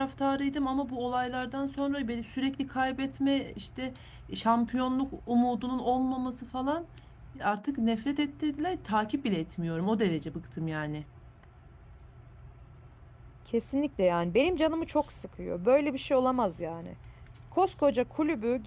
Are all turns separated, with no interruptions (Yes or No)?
Yes